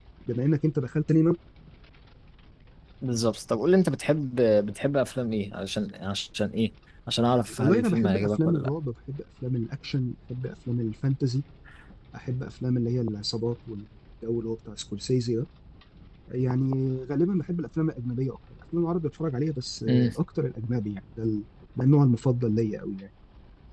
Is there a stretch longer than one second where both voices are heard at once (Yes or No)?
Yes